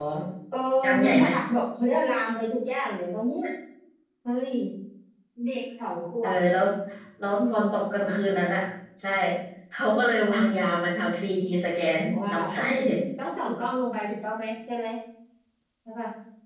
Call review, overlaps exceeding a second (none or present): none